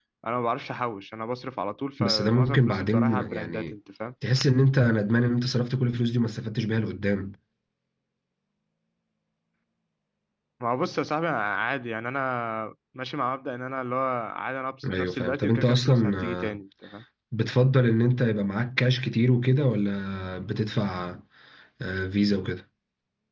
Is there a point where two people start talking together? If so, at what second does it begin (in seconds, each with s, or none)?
2.0 s